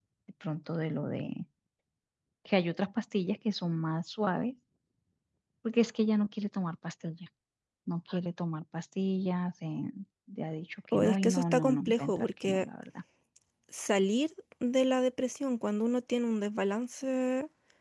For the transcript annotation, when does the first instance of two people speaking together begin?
10.9 s

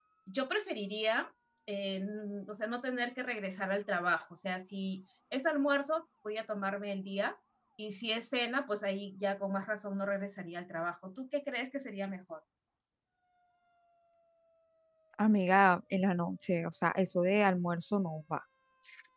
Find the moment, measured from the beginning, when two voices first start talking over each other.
none

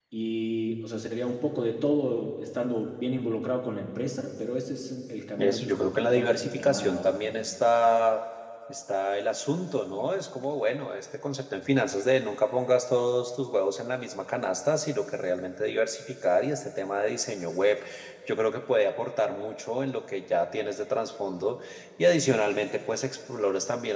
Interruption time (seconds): 5.4 s

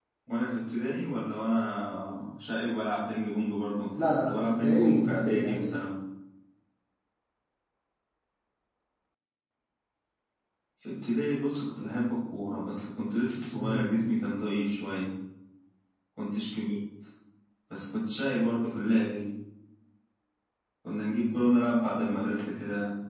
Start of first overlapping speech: 4.0 s

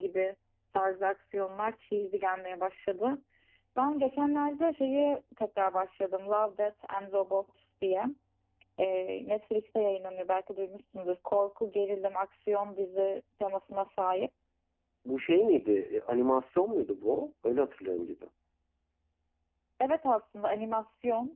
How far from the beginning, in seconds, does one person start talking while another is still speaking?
none

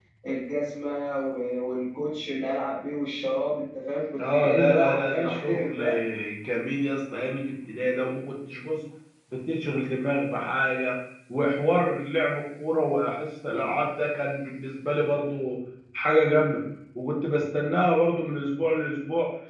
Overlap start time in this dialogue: 4.2 s

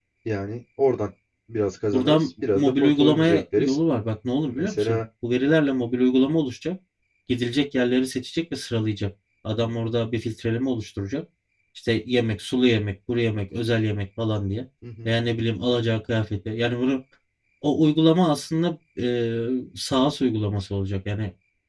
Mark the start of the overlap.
1.9 s

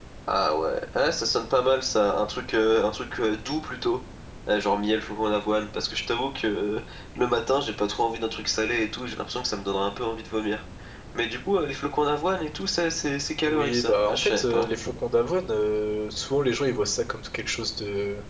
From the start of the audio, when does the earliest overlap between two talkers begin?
13.4 s

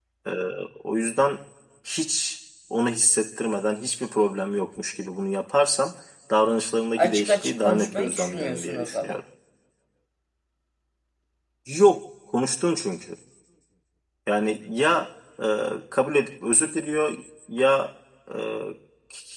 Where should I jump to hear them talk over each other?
7.0 s

